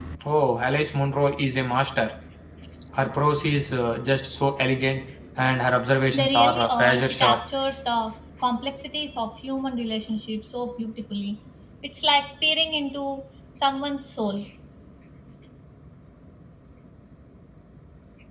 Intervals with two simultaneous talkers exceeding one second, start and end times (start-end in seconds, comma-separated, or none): 6.1-7.4